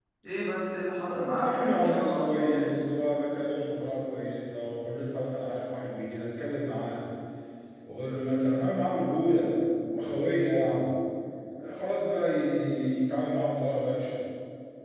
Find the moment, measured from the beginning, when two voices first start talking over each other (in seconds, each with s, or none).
1.0 s